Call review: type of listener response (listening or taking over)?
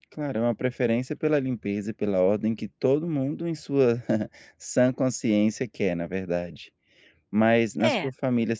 listening